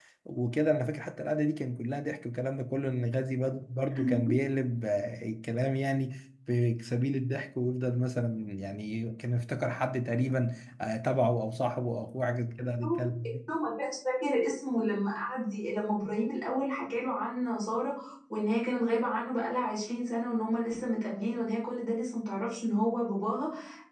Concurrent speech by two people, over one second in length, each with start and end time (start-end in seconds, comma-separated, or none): none